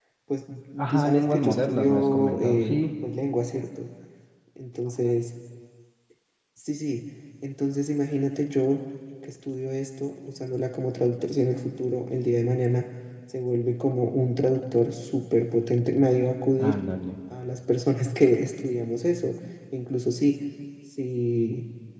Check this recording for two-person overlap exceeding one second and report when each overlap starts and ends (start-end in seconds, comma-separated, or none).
0.9-2.8